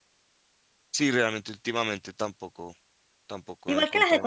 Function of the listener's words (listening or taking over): taking over